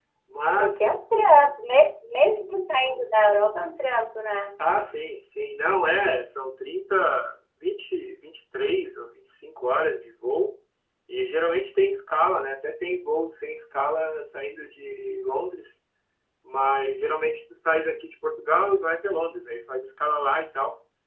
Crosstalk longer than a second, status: none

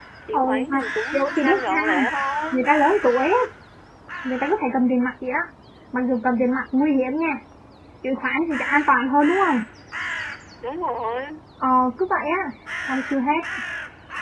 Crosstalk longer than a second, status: present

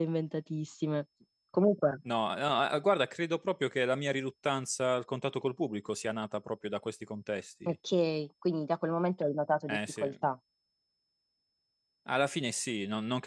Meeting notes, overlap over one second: none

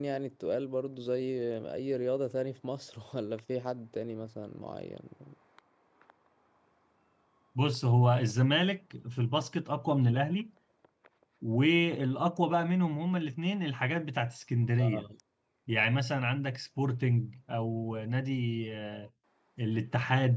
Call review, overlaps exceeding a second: none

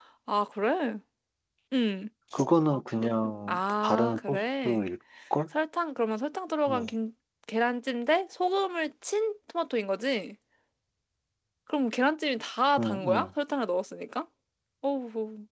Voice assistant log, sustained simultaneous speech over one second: present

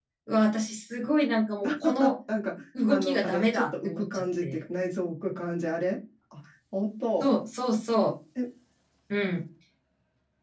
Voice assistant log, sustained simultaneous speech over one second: present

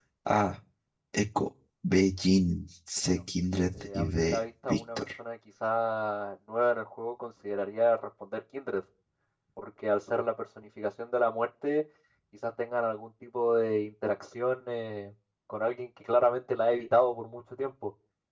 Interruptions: present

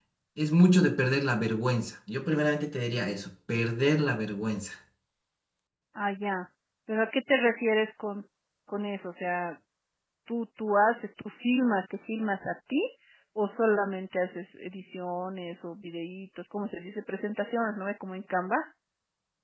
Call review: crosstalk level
none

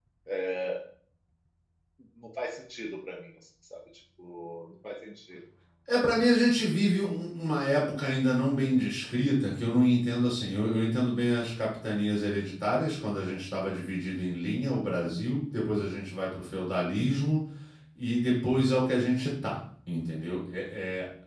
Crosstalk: none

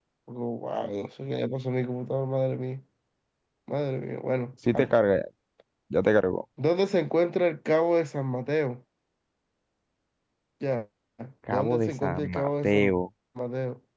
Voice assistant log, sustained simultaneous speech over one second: present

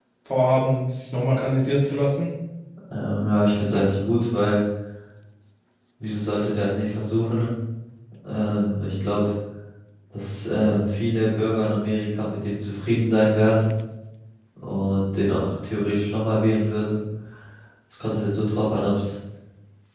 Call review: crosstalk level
none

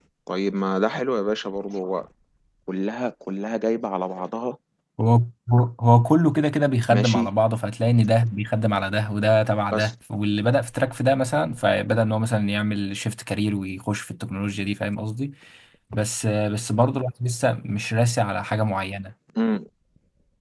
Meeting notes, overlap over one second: none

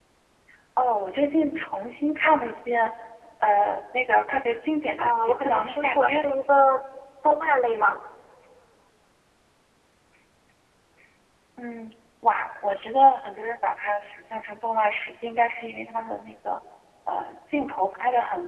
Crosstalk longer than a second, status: present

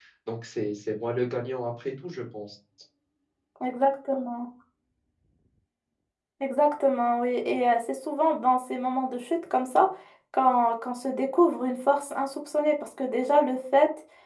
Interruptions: none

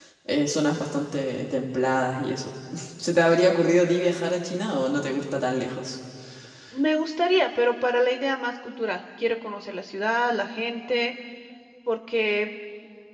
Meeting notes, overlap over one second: none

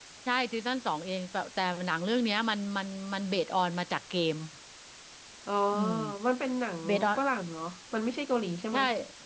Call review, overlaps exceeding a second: none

